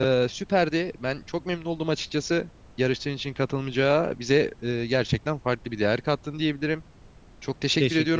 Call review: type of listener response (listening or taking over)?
listening